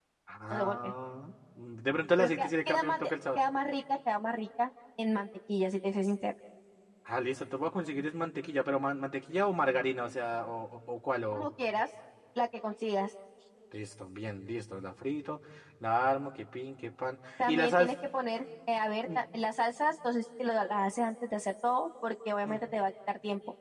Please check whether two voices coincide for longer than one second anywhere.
Yes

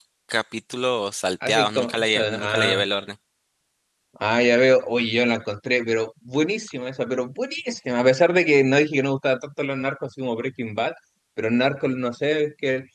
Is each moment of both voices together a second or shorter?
No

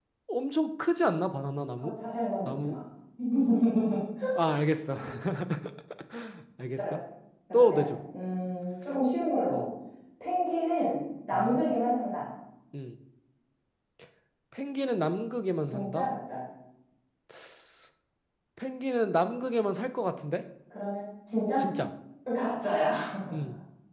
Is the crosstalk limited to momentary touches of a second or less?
Yes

